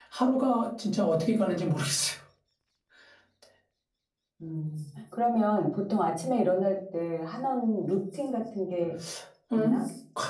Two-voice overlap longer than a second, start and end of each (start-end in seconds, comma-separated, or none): none